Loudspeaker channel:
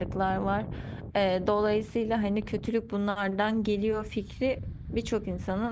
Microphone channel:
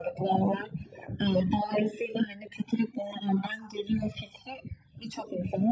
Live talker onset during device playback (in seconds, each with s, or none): none